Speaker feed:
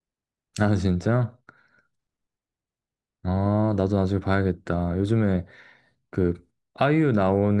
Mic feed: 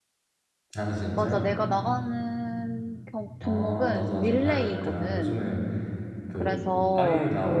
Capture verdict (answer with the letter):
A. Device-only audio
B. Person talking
B